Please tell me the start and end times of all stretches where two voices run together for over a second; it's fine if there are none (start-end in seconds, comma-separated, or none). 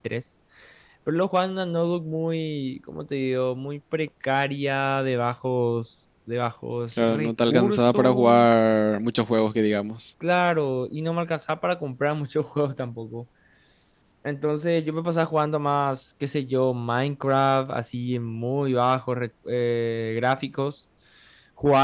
7.0-8.5